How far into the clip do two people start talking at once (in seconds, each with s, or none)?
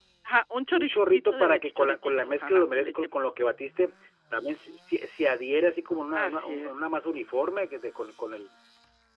0.7 s